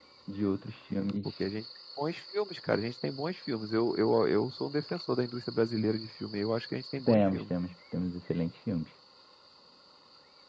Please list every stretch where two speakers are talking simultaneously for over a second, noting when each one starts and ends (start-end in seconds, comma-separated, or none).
none